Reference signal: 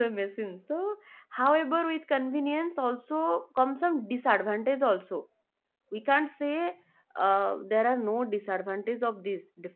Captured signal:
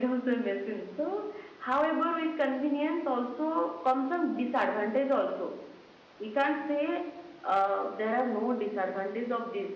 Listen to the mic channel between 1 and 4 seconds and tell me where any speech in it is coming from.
echo only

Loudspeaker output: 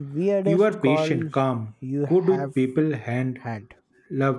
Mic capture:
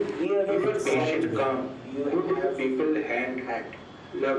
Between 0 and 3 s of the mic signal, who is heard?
both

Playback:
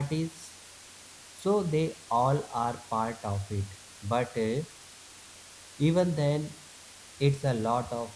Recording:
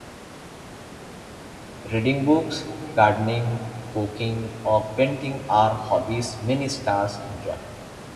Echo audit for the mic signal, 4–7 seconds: user only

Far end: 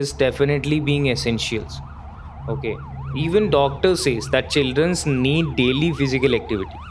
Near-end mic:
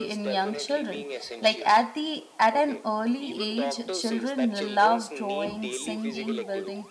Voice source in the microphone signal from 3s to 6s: both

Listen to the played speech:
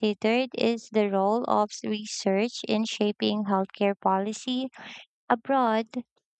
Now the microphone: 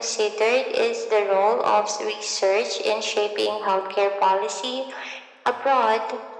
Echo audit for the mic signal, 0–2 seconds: echo only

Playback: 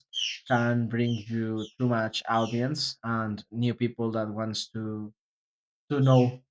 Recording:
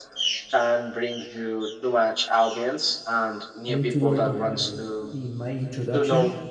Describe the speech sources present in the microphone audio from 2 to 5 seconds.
both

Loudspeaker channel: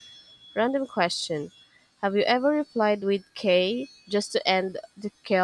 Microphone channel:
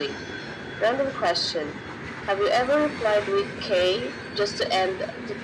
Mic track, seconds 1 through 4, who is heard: echo only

